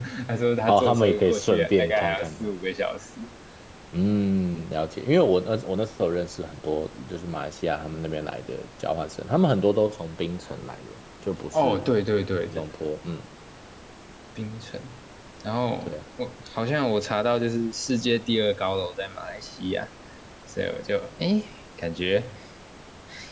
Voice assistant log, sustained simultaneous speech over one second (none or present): present